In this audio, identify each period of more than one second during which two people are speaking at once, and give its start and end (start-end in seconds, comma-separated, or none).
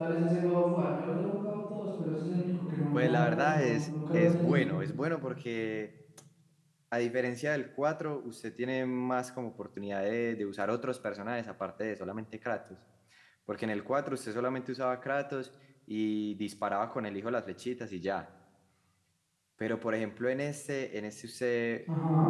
2.9-4.6